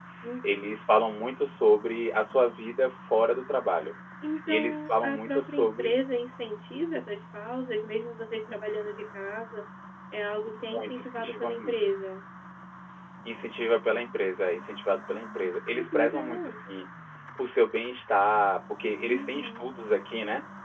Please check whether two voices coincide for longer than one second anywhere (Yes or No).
Yes